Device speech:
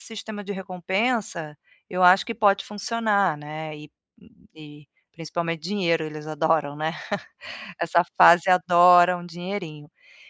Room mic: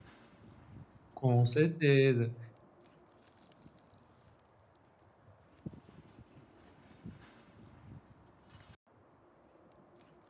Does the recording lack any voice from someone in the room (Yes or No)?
No